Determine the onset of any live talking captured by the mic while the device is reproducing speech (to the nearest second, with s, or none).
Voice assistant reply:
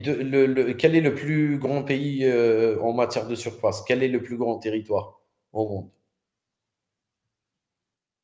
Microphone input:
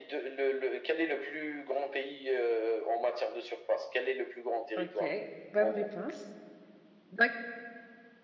5 s